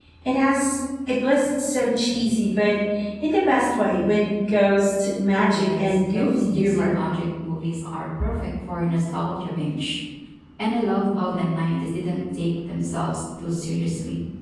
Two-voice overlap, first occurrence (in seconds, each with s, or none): 5.3 s